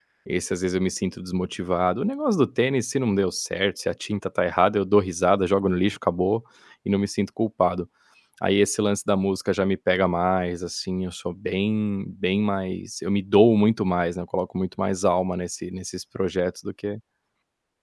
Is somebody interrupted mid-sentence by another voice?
No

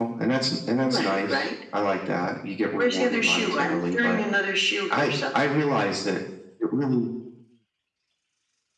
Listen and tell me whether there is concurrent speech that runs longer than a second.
Yes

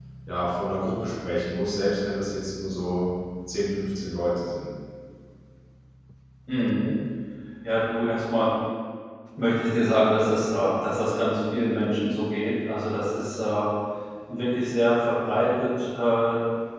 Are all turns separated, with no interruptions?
Yes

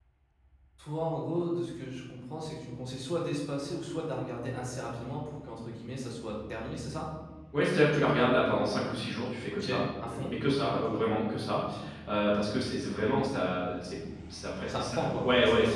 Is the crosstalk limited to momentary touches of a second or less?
No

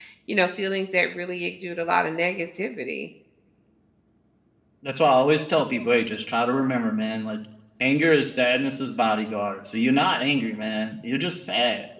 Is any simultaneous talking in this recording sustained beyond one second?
No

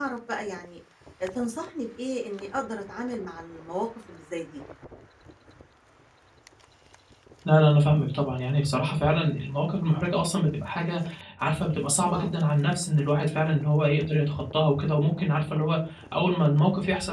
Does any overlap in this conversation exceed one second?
No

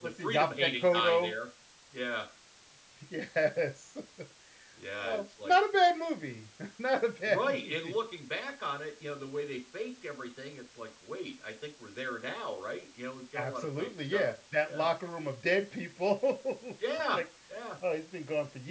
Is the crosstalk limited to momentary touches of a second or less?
No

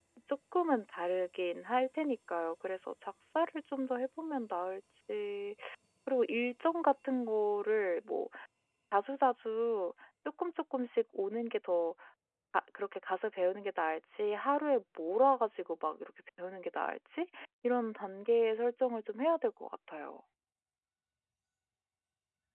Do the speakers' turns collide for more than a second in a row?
No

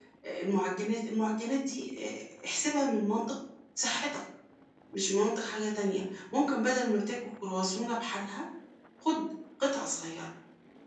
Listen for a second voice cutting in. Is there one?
No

